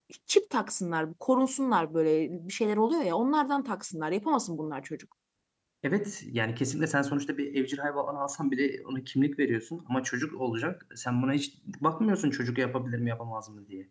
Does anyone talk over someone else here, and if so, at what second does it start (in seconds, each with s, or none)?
none